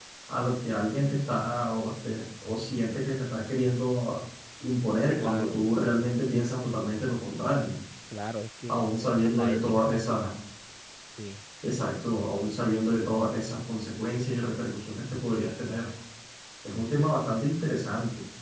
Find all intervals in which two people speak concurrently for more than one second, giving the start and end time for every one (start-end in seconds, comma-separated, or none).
8.7-9.9